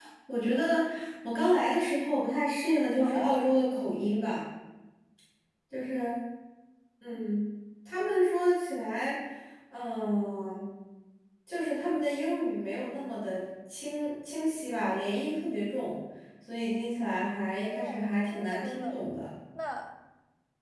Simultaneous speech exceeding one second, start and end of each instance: 17.6-18.9

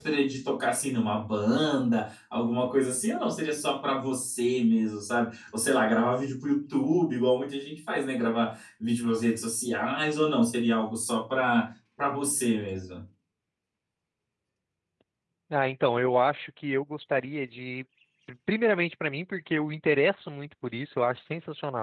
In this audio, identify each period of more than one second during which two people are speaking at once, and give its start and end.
none

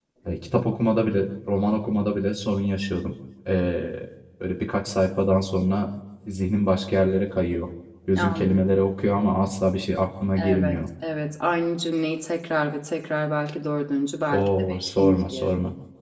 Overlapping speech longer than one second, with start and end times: 14.3-15.5

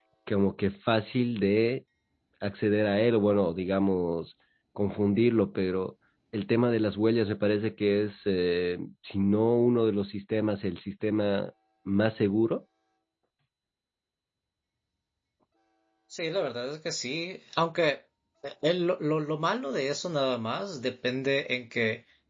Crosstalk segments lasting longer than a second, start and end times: none

